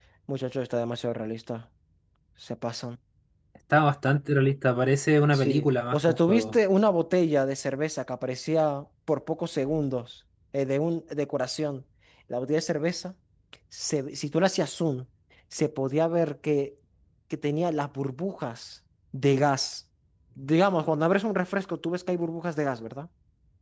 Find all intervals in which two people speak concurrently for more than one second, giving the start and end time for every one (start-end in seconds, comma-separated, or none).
5.3-6.5